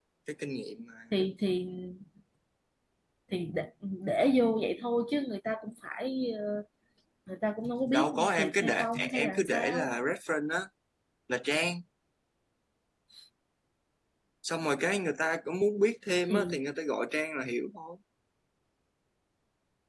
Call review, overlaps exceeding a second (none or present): present